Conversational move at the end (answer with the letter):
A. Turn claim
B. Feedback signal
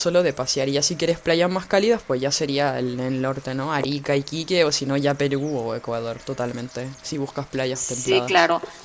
A